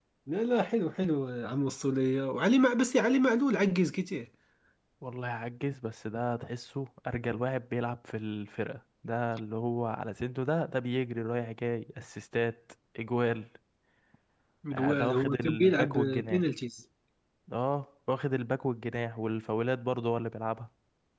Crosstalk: present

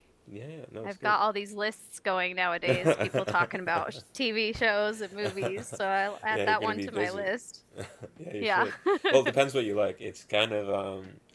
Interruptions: present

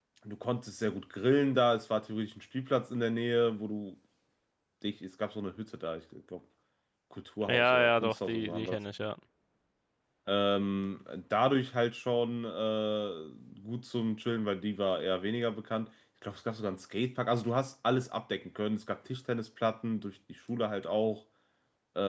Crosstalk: present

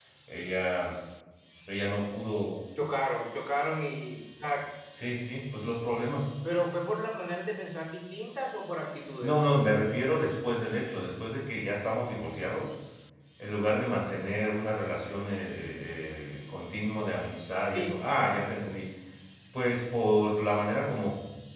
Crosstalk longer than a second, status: none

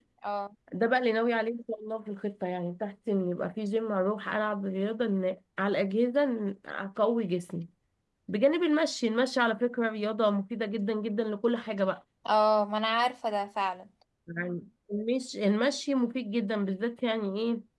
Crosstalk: none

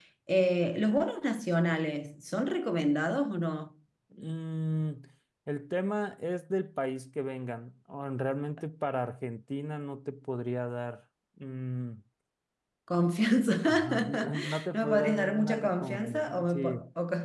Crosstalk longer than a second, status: present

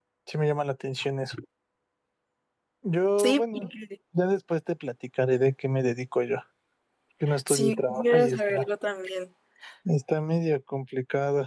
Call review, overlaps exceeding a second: present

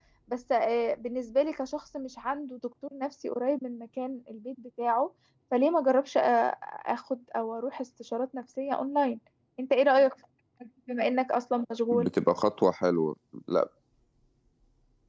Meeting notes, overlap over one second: none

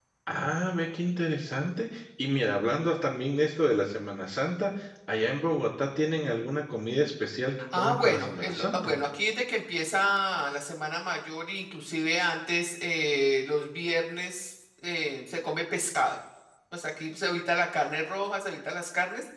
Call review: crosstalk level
present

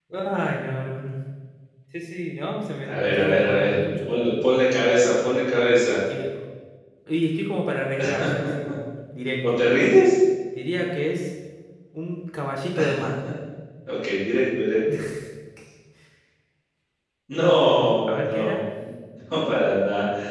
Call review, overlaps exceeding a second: present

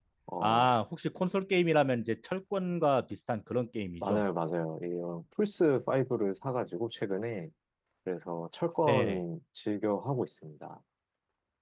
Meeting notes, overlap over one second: none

